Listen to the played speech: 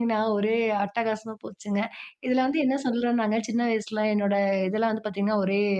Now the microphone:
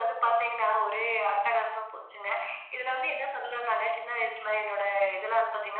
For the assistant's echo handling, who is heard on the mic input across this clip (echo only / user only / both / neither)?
echo only